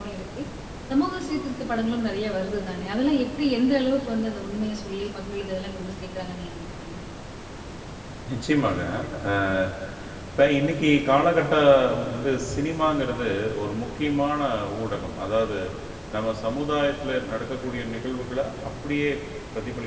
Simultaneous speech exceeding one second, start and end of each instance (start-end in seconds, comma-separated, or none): none